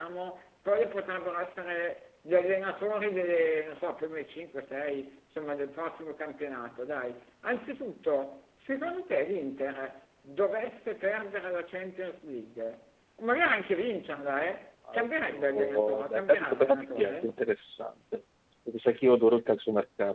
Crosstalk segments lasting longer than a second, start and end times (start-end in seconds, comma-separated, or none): 14.9-17.4